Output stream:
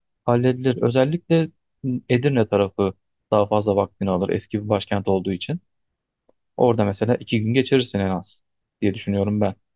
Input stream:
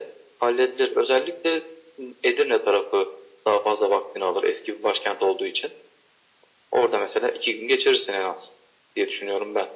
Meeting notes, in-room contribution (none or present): none